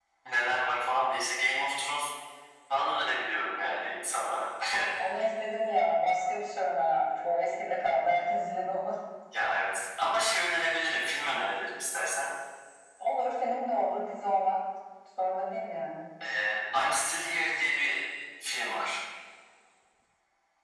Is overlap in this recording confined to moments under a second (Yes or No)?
Yes